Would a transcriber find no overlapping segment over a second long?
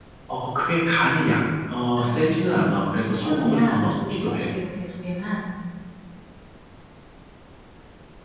No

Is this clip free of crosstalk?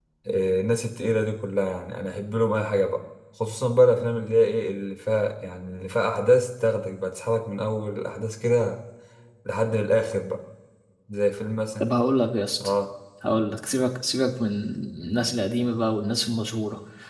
Yes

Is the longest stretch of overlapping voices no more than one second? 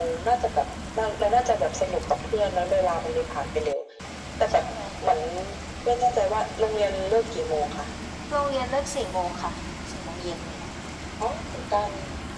Yes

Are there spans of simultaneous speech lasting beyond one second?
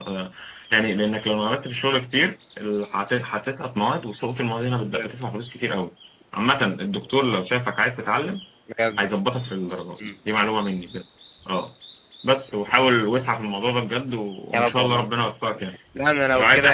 No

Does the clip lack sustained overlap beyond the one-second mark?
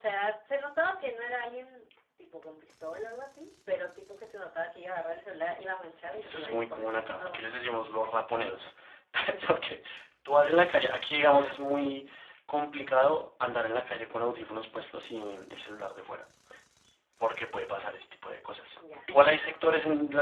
No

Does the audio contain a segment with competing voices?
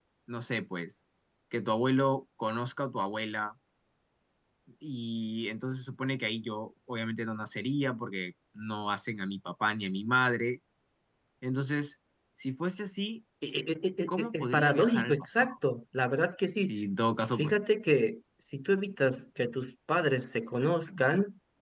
Yes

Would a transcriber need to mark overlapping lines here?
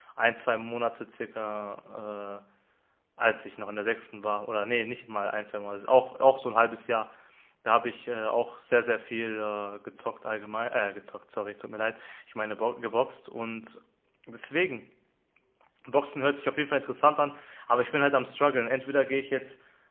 No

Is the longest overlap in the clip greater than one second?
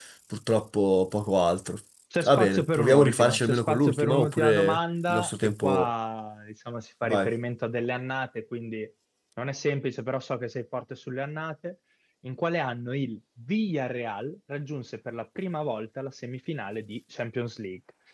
Yes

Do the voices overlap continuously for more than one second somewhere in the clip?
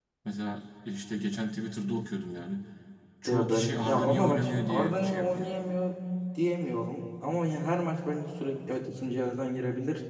Yes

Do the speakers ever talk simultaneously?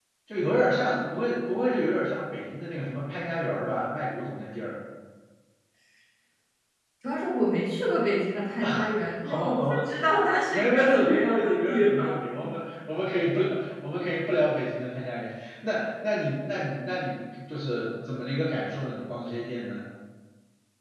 Yes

